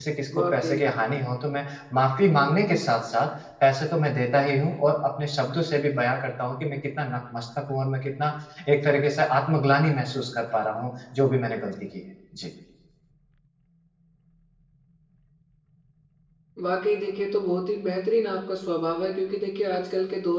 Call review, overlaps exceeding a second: none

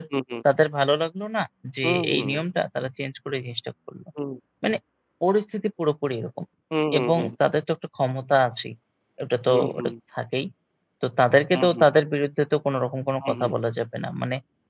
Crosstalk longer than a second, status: none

